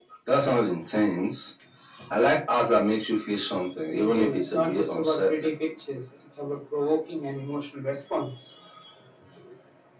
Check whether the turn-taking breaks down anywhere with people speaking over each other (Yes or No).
Yes